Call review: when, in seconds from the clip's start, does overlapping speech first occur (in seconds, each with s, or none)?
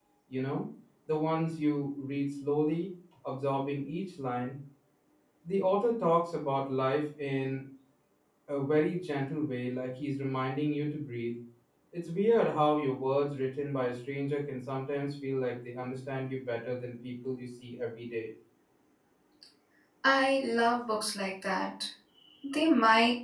none